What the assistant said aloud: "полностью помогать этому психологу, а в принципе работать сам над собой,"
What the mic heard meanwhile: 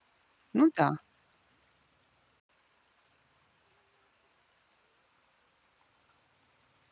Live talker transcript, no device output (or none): Ну да.